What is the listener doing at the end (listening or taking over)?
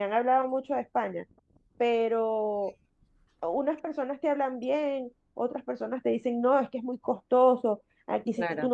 listening